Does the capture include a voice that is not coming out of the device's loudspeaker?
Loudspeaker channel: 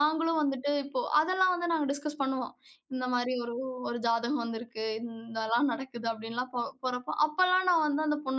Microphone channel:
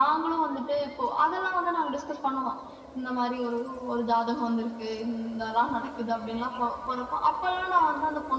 No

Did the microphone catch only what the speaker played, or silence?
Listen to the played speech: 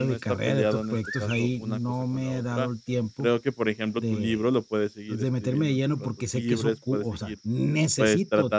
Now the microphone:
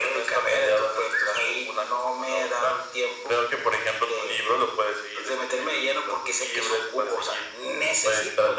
Yes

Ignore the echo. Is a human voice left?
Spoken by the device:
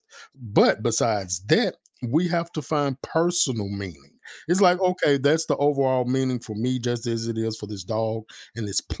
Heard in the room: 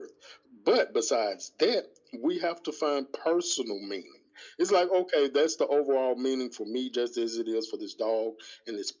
No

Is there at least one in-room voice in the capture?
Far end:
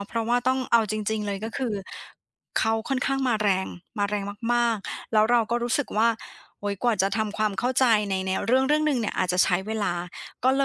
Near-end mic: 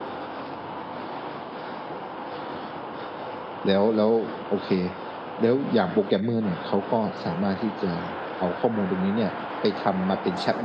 Yes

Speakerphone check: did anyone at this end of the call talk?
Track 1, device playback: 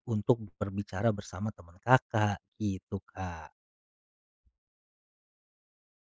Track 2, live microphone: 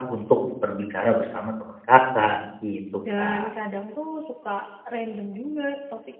Yes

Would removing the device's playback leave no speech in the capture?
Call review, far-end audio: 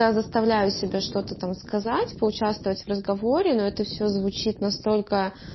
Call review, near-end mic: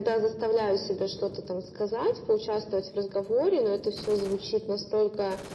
Yes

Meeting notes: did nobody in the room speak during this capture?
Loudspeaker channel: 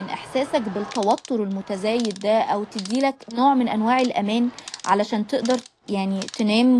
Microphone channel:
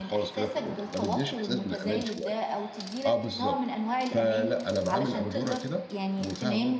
No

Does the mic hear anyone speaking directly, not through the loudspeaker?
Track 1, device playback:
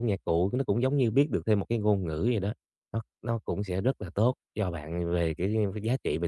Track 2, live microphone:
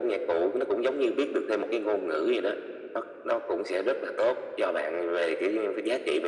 No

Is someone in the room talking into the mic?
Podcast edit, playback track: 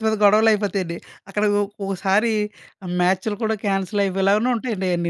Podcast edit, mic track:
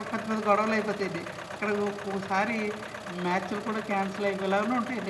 No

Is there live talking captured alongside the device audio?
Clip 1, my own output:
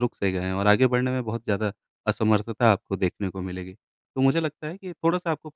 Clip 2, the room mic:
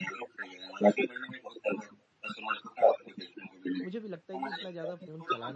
Yes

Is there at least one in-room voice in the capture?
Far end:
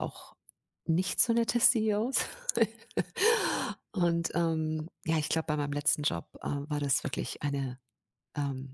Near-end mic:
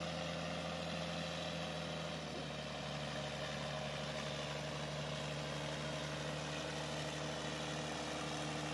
No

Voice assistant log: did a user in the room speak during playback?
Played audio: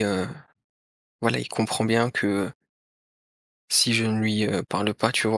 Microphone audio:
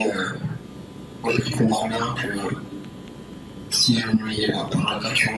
No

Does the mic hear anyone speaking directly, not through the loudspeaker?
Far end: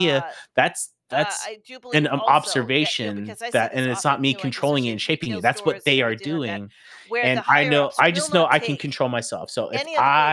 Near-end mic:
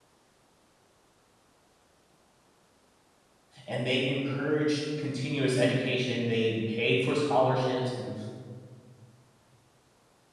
Yes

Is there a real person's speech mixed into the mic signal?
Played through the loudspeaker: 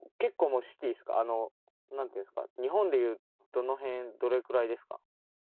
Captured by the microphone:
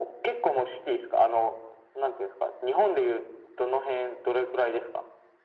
No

